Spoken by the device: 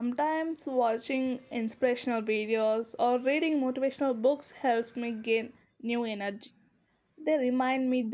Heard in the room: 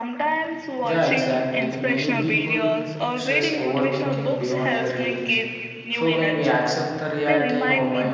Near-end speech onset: 0.8 s

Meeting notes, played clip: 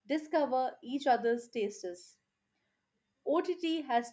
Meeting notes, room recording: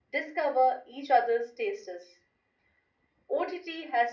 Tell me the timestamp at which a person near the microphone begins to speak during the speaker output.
none

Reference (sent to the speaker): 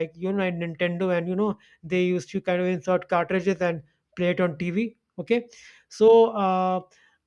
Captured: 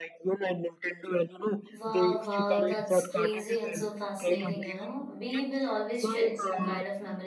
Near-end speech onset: 1.7 s

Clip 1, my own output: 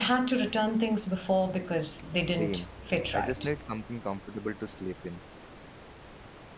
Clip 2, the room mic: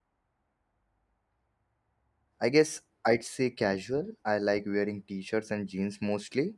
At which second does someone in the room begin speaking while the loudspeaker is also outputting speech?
2.4 s

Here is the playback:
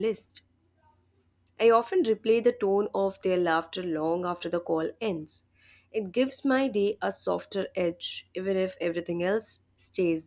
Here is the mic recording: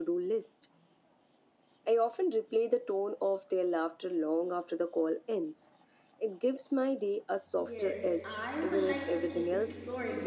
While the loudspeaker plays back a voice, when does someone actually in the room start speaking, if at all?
7.5 s

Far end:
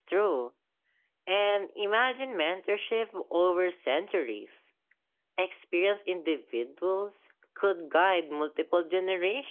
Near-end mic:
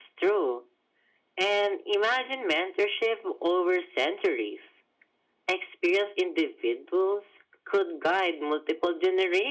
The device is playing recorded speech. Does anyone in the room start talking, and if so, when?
none

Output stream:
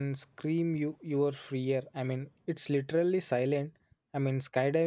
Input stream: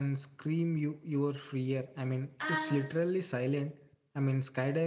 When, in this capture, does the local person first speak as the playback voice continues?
2.4 s

